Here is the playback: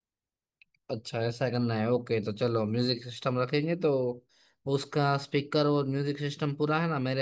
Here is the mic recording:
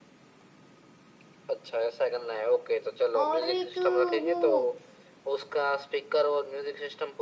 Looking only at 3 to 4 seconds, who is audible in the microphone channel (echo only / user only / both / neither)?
both